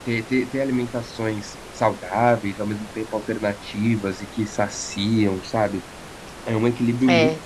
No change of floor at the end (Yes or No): Yes